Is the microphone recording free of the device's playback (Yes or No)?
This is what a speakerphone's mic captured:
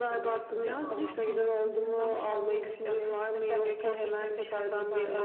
No